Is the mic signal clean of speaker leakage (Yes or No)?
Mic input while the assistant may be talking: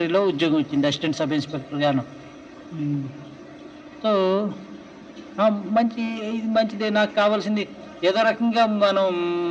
No